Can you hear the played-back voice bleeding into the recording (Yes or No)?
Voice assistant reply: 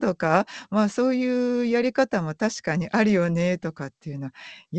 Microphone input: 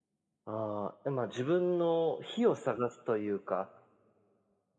No